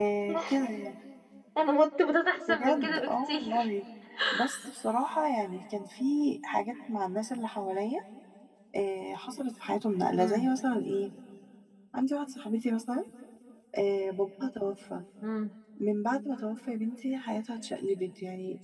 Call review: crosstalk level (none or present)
present